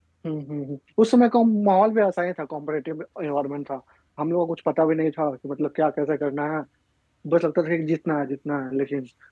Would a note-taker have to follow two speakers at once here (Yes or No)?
No